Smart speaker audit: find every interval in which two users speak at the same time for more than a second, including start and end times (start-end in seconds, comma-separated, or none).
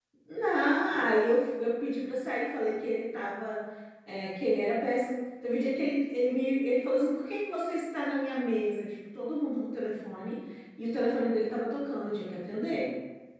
none